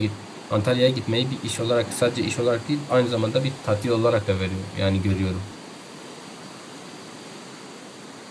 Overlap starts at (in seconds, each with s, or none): none